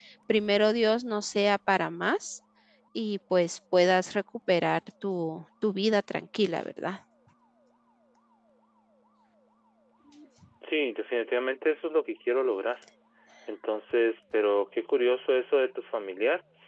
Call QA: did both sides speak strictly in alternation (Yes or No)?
Yes